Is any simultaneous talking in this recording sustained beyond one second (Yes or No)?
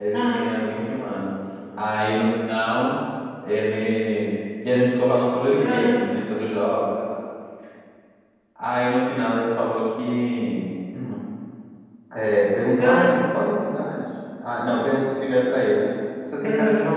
No